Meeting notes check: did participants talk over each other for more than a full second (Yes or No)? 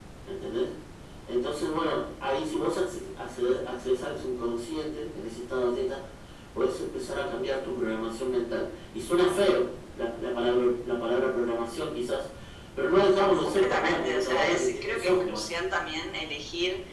Yes